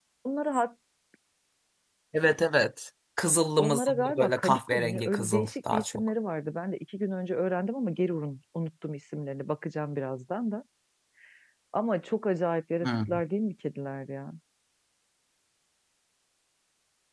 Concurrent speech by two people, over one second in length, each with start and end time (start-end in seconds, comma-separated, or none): 3.6-6.1